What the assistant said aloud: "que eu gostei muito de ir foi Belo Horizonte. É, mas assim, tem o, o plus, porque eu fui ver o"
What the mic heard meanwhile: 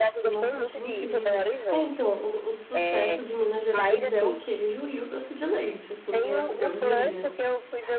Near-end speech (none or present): present